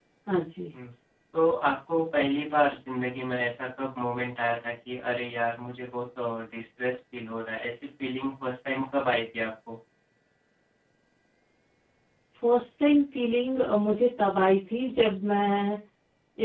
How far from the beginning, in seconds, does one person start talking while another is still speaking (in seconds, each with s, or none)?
none